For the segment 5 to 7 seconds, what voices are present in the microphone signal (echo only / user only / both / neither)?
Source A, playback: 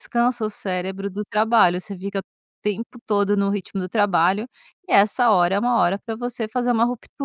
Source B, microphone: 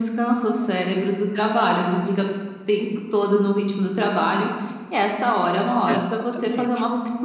both